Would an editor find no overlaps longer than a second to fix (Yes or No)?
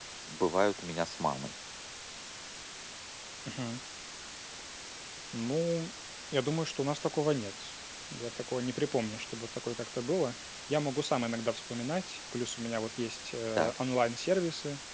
Yes